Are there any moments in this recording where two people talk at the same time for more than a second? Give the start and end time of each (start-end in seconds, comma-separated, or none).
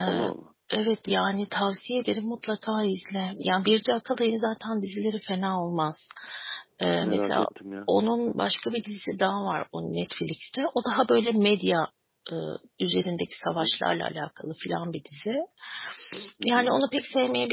none